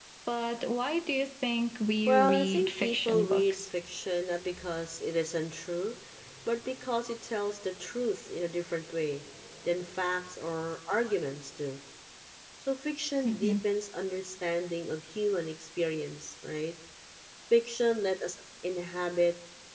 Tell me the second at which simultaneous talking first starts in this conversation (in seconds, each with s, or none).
2.1 s